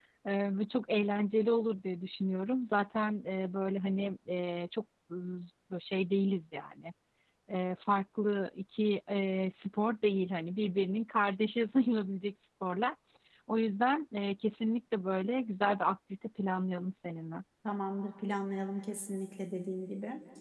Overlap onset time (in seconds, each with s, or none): none